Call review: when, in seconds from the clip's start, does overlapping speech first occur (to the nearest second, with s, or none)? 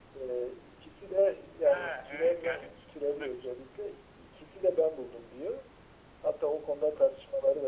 2 s